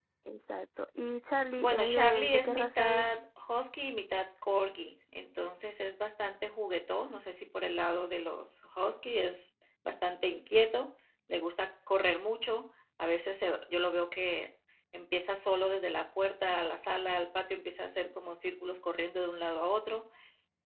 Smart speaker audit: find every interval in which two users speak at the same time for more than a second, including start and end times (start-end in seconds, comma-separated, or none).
1.6-3.1